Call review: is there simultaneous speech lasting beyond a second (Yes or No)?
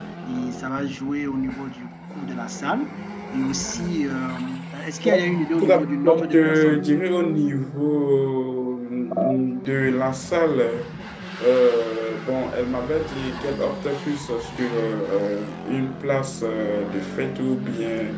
Yes